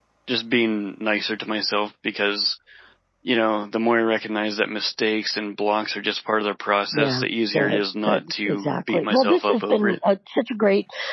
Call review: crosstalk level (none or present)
present